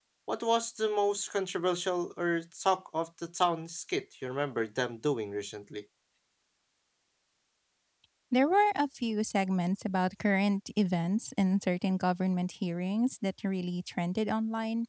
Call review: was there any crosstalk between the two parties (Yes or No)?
No